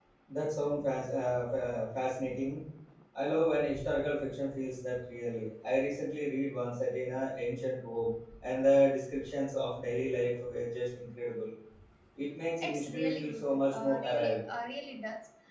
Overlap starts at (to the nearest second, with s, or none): 13 s